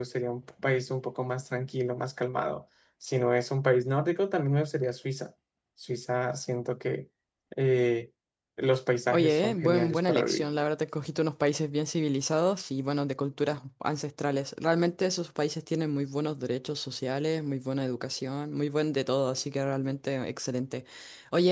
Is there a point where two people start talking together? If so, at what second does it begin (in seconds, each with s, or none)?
9.1 s